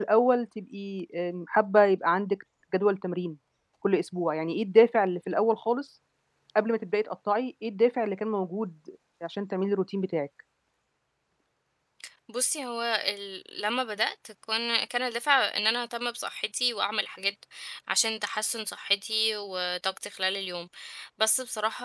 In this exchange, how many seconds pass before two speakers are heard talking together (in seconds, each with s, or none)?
none